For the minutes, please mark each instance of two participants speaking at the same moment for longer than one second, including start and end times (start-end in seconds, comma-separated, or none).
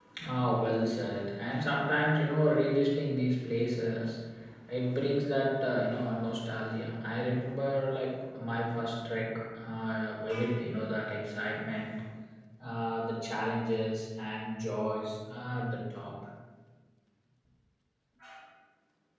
none